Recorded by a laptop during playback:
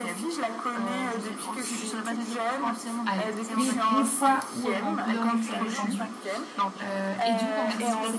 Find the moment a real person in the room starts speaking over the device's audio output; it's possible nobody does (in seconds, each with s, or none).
3.0 s